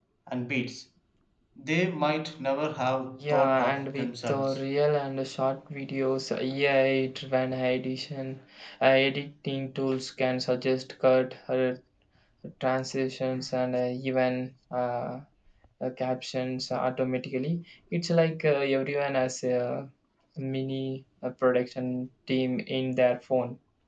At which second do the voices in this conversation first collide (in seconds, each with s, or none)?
3.2 s